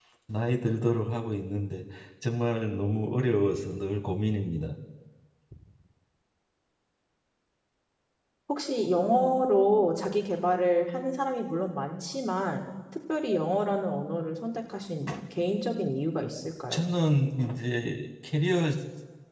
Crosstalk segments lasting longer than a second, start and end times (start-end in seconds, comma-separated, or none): none